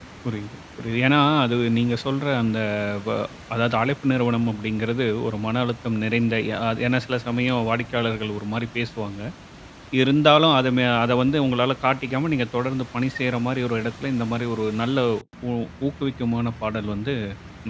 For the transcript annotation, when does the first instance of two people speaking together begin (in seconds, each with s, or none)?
none